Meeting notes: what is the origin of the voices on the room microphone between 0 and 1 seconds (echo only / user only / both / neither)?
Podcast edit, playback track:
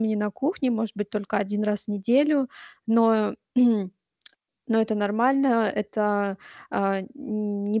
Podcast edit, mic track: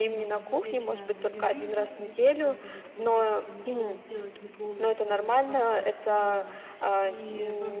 both